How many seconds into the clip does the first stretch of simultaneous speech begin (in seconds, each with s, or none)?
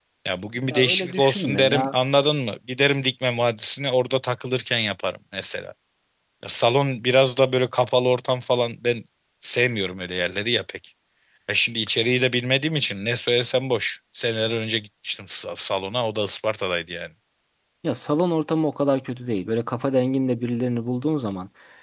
0.7 s